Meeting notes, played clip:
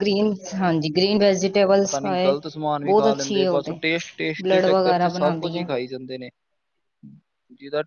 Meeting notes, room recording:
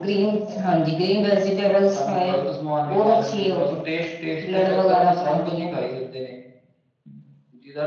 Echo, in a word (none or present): present